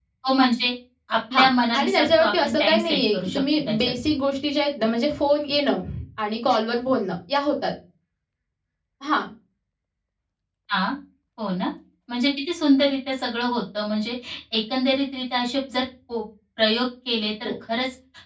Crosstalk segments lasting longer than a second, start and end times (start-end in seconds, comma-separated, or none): 1.8-3.9